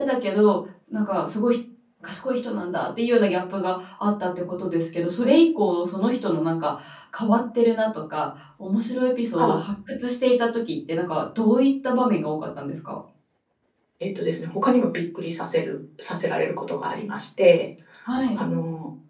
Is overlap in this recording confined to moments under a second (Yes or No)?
Yes